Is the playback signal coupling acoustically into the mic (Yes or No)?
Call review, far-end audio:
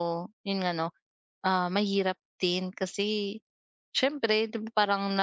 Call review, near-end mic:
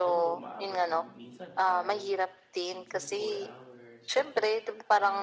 Yes